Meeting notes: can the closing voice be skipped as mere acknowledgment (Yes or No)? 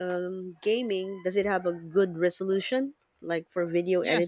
No